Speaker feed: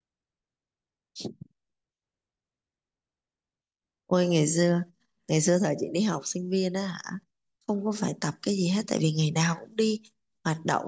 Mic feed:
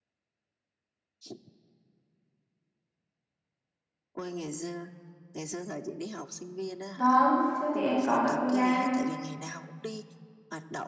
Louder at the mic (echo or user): user